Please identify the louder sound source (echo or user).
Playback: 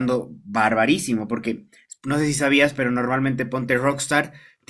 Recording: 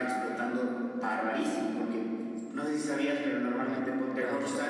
echo